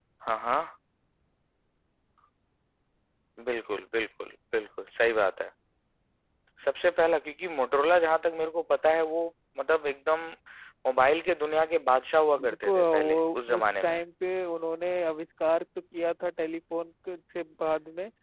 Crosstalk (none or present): present